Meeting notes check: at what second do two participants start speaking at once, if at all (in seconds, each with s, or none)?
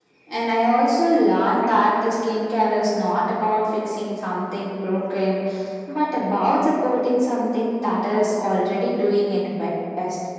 none